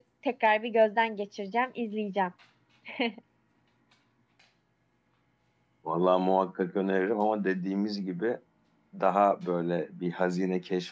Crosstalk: none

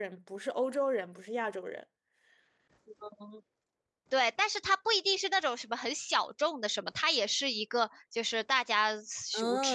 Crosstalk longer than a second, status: none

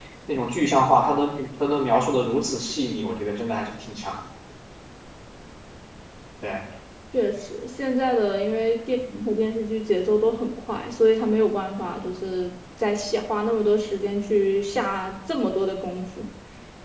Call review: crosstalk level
none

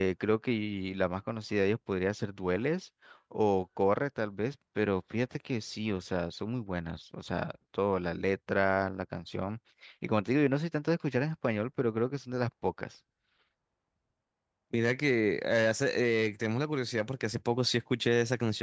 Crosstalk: none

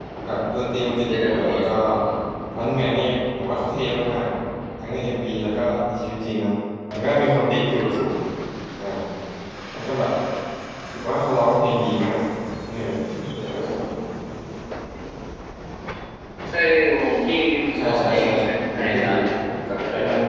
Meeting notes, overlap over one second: present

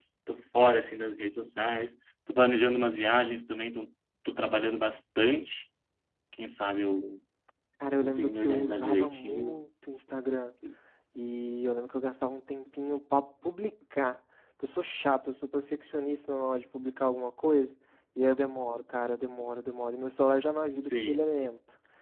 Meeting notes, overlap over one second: present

